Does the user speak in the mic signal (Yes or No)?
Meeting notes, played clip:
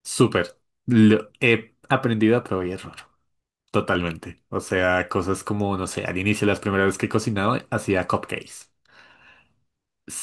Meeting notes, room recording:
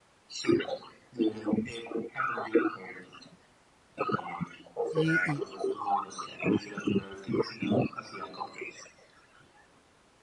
Yes